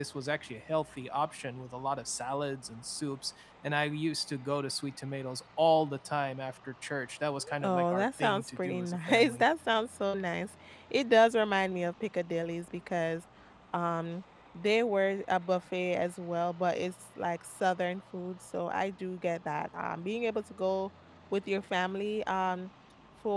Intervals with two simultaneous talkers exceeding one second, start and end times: 7.6-9.4

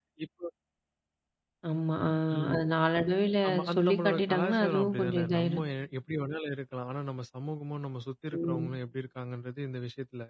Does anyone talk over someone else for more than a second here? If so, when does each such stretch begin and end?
3.5-5.6

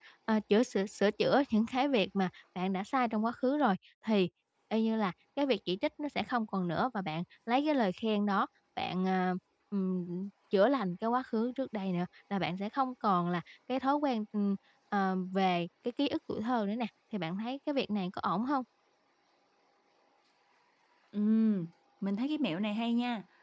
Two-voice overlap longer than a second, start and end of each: none

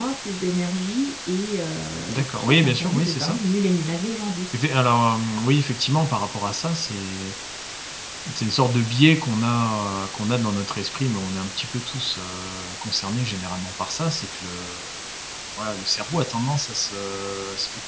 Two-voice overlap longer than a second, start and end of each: 2.1-3.4

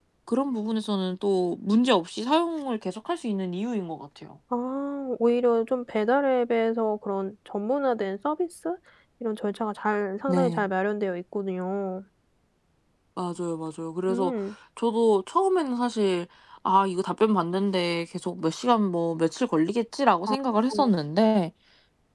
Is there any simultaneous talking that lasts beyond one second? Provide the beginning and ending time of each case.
none

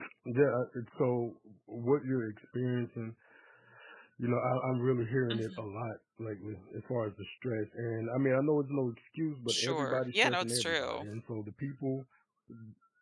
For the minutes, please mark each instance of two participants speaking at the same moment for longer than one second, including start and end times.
9.5-11.1

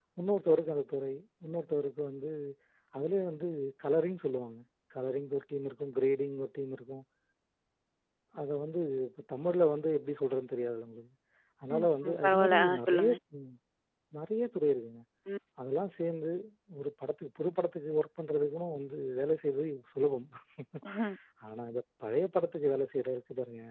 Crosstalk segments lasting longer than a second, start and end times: 11.7-13.1

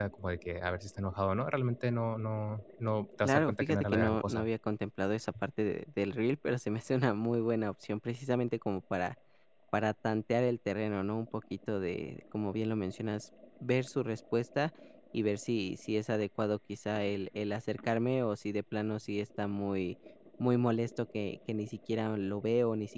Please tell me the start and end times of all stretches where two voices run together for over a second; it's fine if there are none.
3.2-4.5

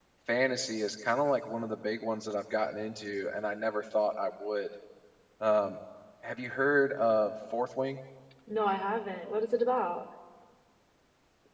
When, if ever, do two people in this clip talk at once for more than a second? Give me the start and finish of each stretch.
none

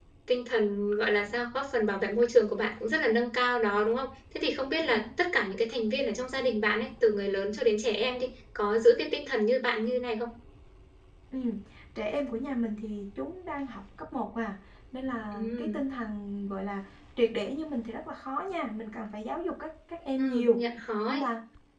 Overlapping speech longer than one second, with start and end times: none

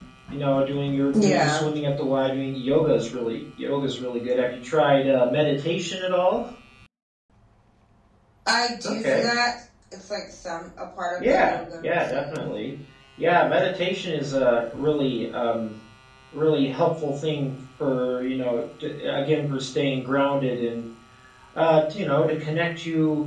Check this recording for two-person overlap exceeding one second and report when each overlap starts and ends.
11.2-12.5

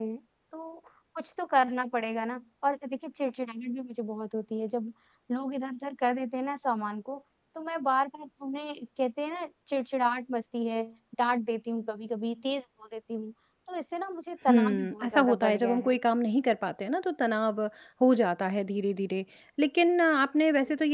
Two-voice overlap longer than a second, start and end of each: 14.5-16.0

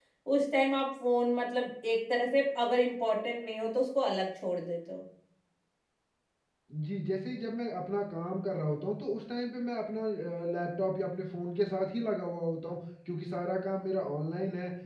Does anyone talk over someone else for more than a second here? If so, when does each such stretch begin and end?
none

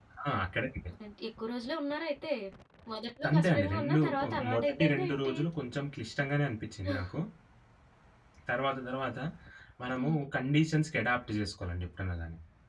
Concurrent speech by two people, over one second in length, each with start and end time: 3.3-5.3

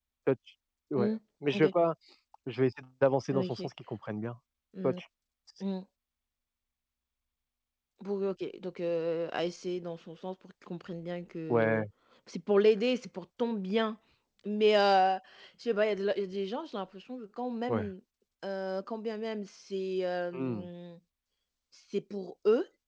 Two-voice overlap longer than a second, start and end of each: none

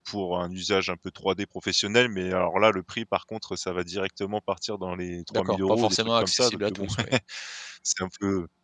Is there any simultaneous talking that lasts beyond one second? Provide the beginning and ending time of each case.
5.3-6.9

